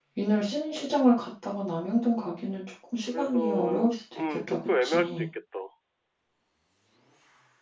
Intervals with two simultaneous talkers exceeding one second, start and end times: 3.1-5.3

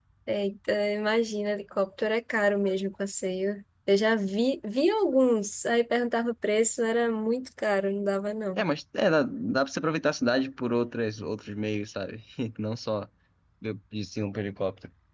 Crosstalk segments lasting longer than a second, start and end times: none

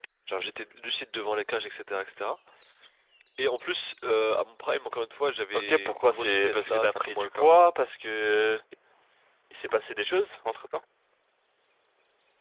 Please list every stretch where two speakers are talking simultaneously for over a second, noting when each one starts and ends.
5.5-7.5

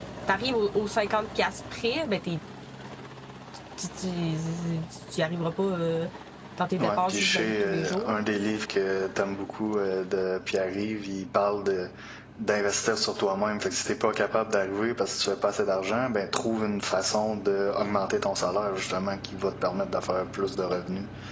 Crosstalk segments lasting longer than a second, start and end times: 6.8-8.2

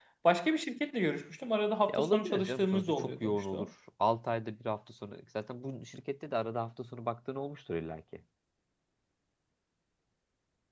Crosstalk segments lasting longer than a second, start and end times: 1.9-3.7

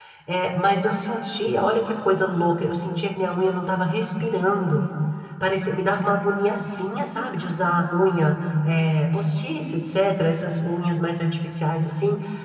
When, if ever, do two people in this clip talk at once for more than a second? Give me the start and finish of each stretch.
none

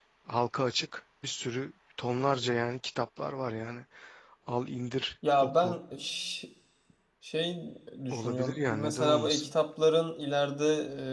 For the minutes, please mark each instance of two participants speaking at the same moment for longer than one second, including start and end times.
8.1-9.5

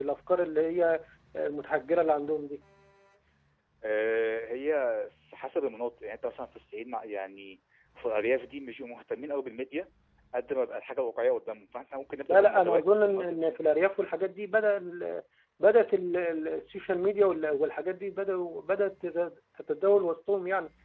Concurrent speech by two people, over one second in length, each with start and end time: 12.3-13.6

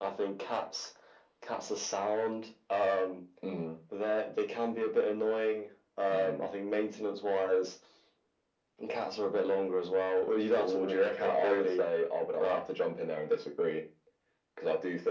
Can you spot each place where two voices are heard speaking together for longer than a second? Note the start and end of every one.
10.6-11.8

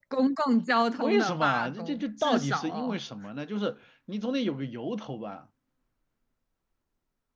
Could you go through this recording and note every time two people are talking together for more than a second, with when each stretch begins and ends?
1.0-3.0

